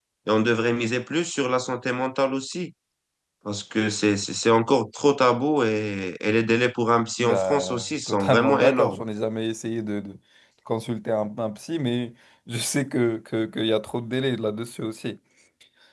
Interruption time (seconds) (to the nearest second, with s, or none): 7 s